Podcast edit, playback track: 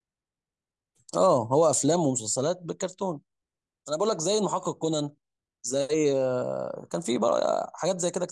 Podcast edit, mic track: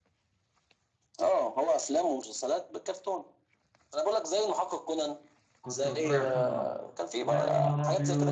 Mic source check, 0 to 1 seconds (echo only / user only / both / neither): neither